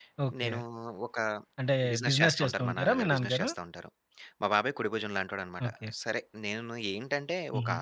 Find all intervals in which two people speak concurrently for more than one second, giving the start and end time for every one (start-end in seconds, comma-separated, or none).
1.9-3.5